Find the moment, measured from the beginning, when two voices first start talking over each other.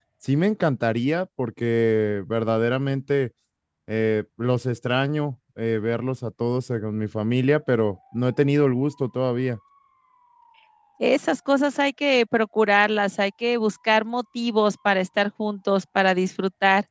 none

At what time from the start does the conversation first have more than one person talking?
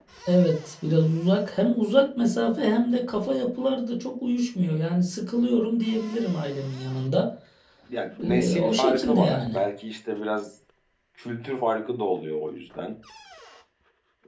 8.2 s

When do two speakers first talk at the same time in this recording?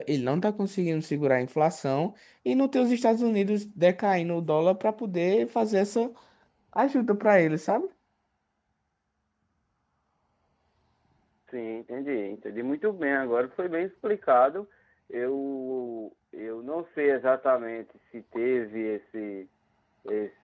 none

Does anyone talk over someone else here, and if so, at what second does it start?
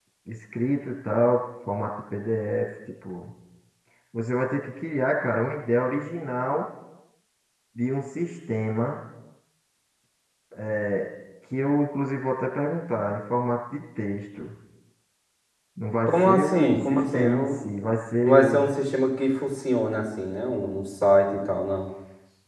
16.1 s

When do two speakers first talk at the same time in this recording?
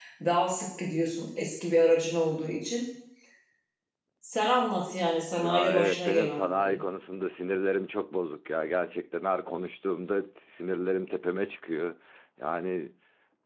5.4 s

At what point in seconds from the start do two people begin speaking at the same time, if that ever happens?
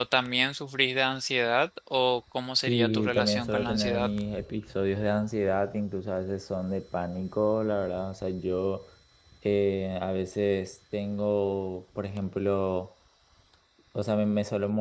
2.7 s

